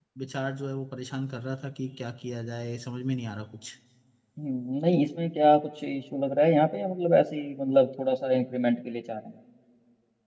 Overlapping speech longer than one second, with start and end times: none

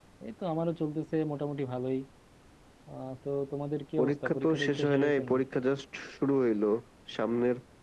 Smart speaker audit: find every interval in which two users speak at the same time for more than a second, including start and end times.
4.0-5.3

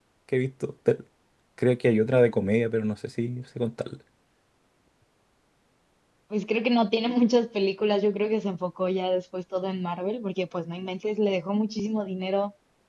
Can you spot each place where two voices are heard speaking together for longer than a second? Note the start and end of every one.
none

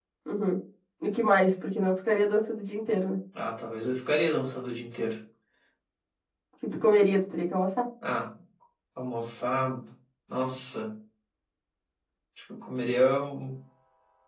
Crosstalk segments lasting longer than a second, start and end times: none

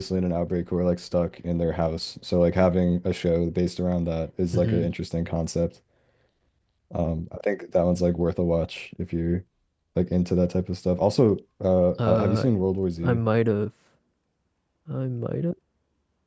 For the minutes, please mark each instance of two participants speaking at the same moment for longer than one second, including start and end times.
none

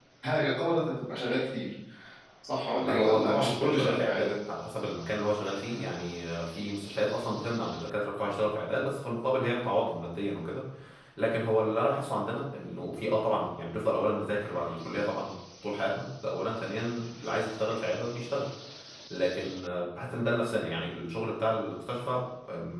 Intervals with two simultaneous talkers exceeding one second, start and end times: 2.9-4.3

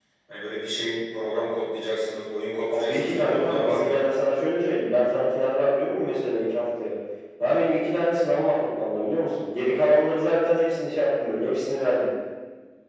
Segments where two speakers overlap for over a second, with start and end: 2.7-4.0

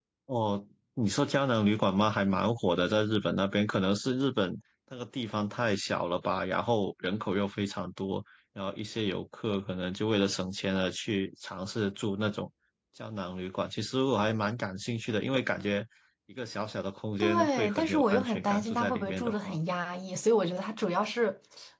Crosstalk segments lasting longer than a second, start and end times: 17.2-19.6

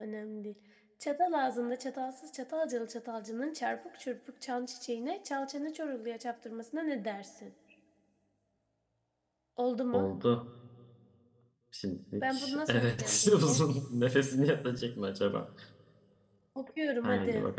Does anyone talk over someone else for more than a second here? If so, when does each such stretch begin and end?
12.2-13.6

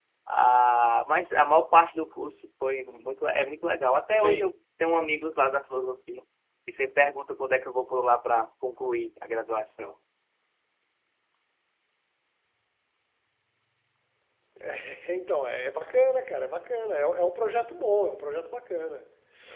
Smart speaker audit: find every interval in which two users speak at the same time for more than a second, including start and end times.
none

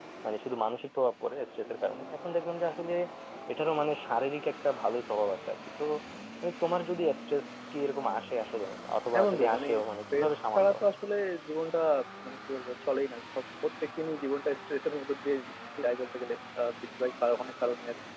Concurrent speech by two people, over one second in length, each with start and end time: 9.1-10.8

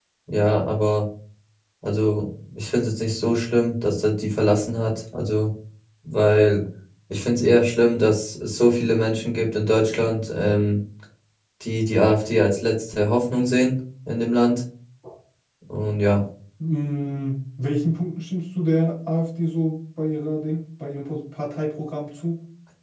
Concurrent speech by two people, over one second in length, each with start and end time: none

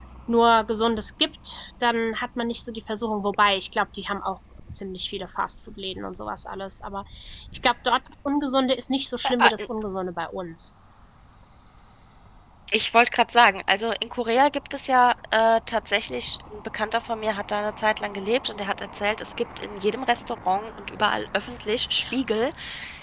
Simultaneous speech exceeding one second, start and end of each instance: none

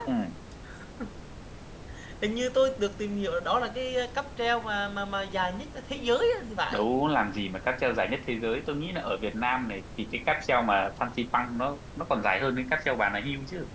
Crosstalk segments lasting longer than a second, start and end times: none

